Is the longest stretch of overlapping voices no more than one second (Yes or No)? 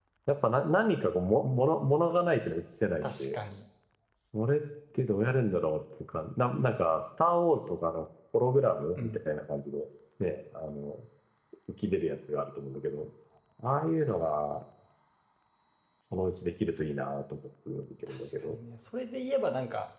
Yes